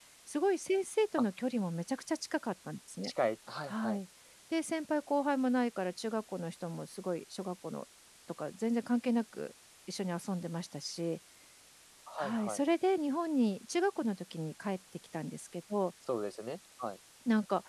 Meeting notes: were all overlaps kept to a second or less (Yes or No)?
Yes